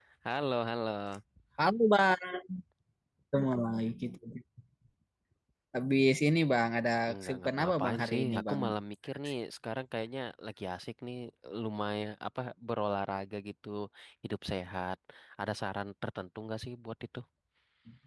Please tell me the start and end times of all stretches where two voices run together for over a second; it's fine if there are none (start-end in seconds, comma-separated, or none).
7.2-8.6